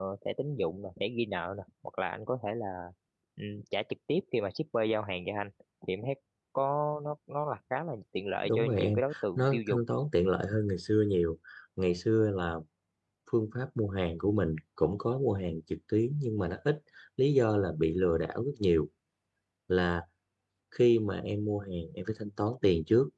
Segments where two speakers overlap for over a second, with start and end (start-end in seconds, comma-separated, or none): 8.4-9.8